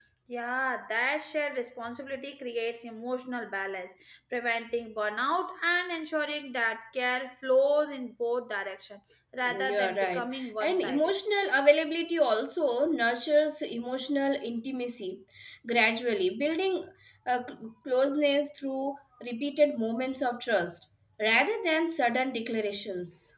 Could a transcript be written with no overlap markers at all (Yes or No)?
No